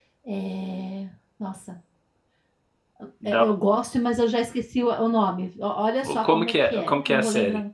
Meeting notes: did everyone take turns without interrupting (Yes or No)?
No